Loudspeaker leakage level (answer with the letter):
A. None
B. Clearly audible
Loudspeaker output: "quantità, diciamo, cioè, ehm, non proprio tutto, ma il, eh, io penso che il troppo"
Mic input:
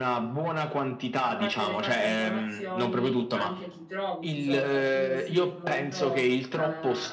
B